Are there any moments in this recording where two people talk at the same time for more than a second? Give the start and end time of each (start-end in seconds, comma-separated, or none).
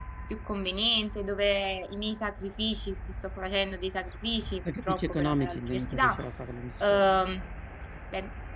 4.8-6.2